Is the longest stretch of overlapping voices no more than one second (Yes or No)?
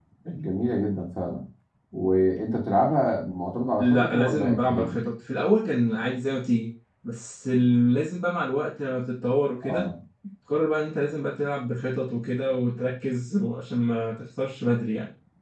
No